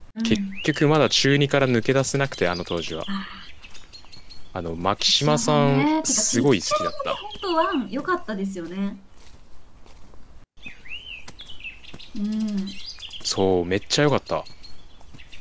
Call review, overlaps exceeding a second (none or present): present